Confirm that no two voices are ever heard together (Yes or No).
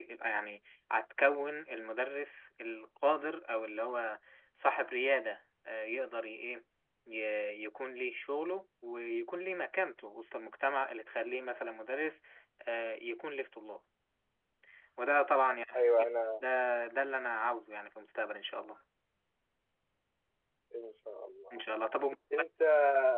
Yes